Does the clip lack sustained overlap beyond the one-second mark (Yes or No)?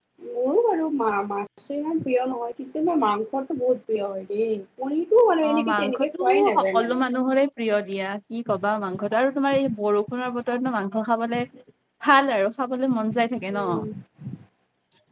No